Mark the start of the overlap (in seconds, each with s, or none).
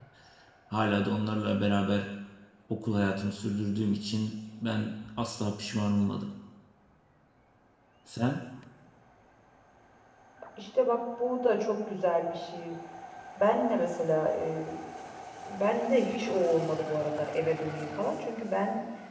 none